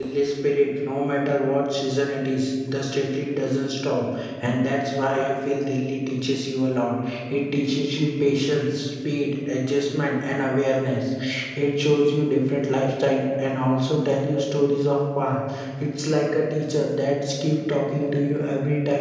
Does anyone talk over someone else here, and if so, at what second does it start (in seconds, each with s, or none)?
none